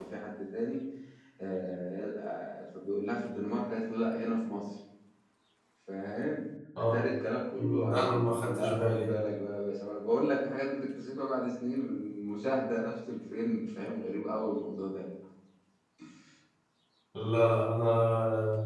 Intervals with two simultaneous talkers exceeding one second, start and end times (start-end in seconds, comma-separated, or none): 7.5-9.1